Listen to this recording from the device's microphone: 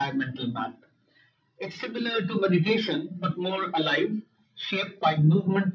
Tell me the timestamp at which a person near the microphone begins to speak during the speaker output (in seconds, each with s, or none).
none